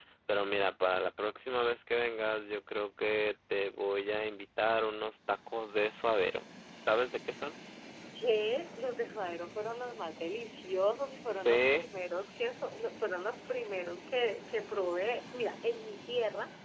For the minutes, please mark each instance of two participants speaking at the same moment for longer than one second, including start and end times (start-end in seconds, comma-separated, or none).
none